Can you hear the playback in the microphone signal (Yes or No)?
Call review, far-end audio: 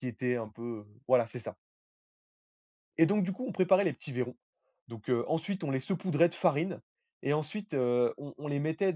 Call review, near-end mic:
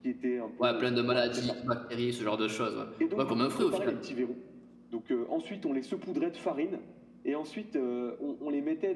Yes